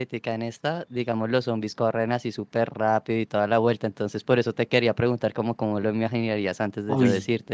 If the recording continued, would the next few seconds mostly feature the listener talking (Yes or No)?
No